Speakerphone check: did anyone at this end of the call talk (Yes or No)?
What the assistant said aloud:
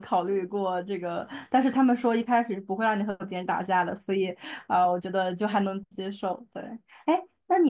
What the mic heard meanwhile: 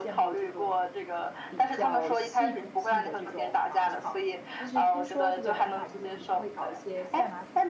Yes